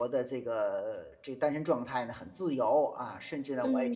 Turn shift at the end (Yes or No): Yes